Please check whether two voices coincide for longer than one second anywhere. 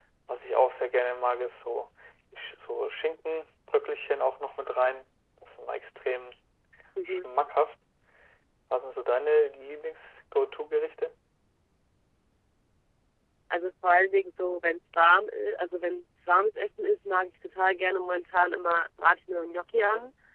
No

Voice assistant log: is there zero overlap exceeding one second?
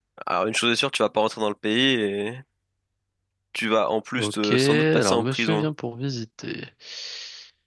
No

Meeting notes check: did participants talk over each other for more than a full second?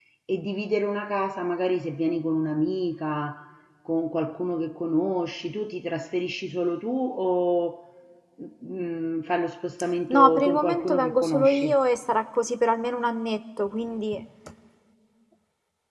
Yes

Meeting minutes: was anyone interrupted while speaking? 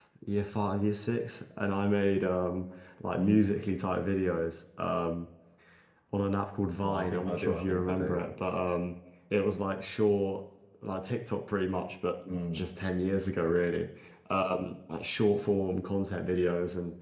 Yes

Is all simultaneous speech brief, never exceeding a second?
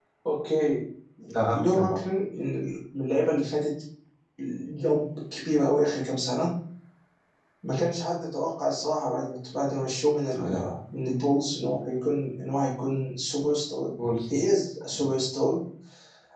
Yes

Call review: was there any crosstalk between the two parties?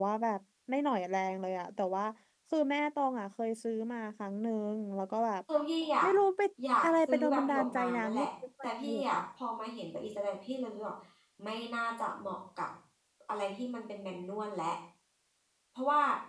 Yes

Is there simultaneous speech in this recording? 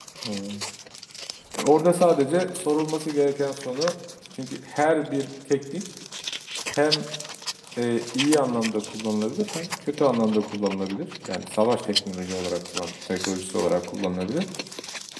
No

